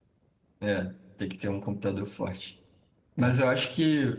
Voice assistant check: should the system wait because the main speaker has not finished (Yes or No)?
Yes